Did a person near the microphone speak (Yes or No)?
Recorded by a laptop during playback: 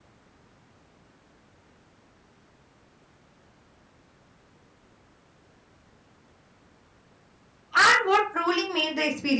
Yes